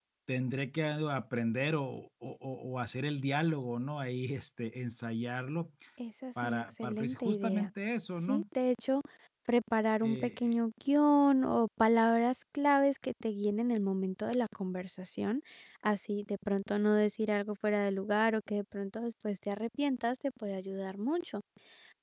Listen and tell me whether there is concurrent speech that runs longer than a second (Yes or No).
Yes